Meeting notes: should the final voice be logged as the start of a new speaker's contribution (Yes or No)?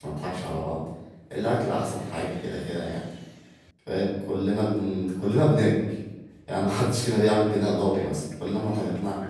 No